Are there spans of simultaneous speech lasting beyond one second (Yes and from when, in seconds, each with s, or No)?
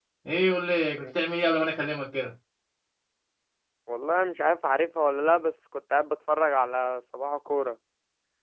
No